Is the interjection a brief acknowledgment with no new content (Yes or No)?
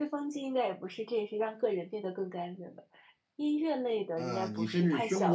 No